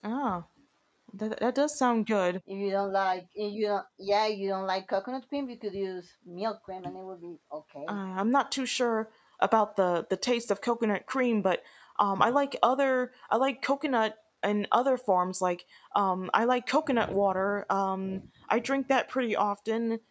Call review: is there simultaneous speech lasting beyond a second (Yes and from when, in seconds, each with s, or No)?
No